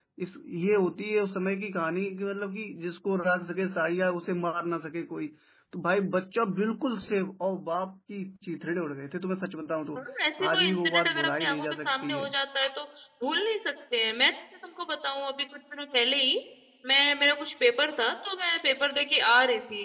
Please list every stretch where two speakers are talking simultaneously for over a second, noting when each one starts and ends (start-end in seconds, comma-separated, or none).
10.5-12.2